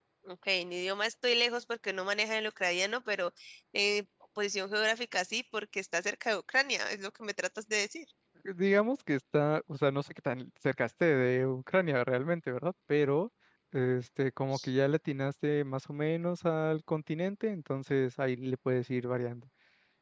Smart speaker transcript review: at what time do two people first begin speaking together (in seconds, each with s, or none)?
none